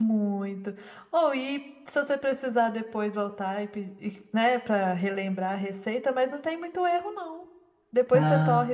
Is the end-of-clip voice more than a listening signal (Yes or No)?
No